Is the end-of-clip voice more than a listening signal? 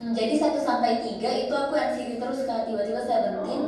No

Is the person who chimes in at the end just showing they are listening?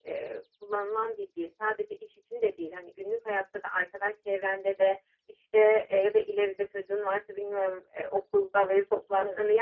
Yes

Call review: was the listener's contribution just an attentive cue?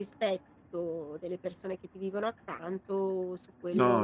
No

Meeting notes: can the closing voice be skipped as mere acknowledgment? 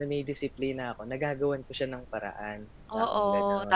No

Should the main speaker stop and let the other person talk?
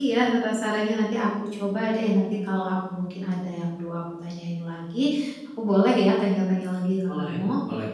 Yes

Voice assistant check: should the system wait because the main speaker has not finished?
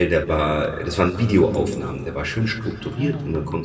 Yes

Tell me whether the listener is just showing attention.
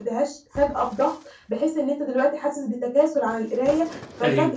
Yes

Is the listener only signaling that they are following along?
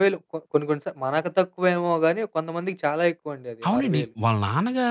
No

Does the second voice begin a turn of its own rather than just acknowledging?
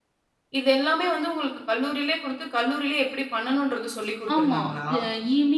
Yes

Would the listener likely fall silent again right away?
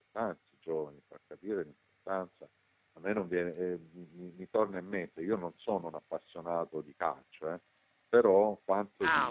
Yes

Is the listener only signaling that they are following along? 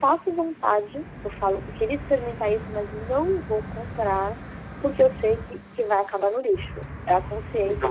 No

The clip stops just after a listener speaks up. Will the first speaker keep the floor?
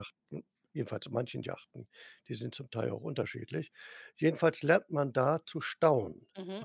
No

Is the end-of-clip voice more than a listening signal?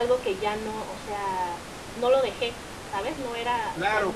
Yes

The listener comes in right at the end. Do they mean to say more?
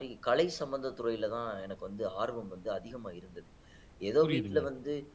No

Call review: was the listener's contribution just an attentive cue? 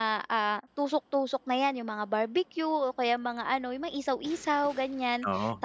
Yes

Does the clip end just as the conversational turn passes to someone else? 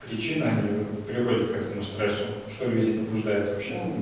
Yes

